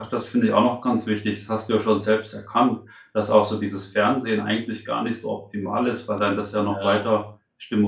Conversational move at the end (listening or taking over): listening